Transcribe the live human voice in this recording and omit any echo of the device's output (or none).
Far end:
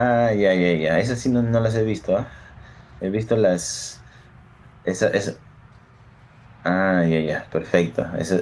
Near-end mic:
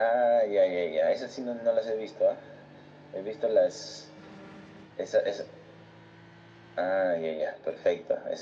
none